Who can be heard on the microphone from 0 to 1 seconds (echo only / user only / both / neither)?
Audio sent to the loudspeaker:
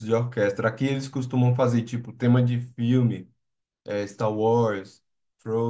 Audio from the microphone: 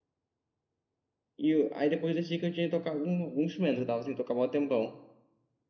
neither